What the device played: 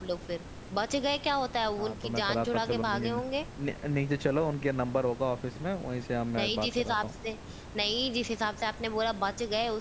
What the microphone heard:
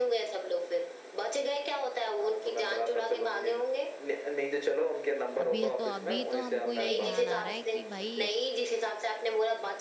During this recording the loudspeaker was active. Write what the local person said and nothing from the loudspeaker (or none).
अभी तो अभी तो हमको ये ध्यान आ रहा है कि भाई